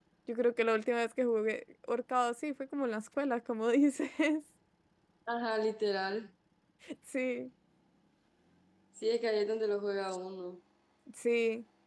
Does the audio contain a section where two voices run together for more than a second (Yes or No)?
No